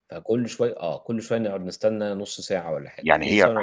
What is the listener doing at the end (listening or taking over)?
taking over